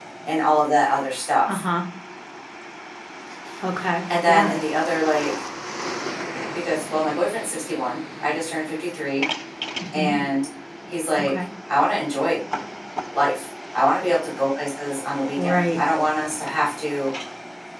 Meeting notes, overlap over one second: none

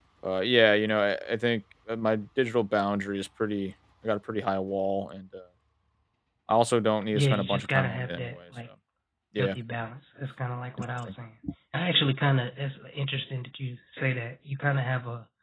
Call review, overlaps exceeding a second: present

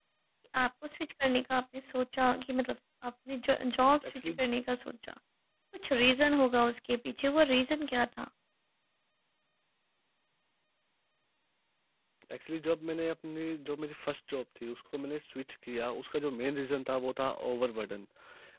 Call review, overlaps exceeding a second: none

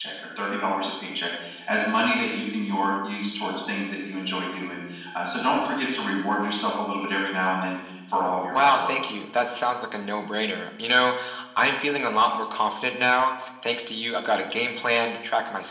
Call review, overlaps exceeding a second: none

